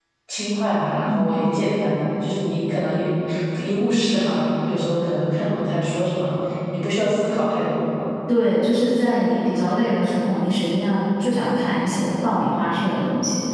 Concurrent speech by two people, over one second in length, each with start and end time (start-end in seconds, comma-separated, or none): none